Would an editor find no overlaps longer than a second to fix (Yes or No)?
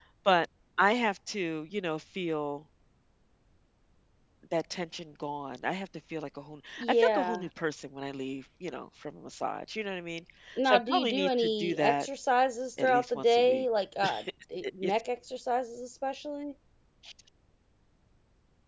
No